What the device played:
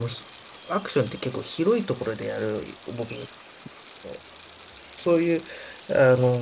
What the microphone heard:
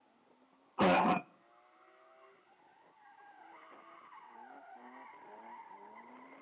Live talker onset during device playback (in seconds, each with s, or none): 0.8 s